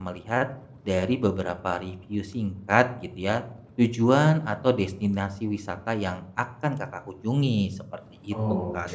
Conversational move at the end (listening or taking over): taking over